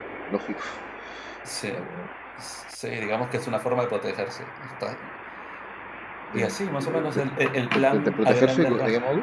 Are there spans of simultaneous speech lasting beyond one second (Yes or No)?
Yes